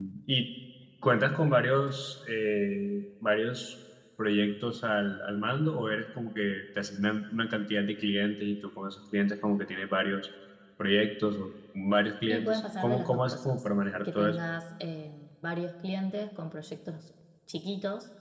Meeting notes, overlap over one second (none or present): present